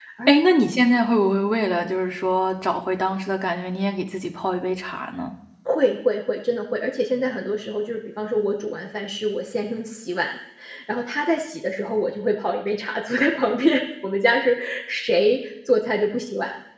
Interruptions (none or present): none